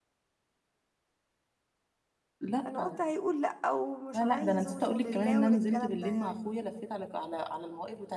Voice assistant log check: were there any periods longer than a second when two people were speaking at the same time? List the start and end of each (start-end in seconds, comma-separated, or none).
4.1-6.3